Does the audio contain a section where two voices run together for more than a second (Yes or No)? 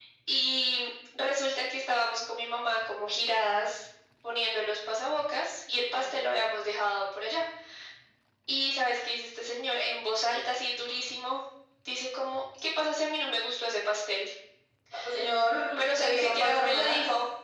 Yes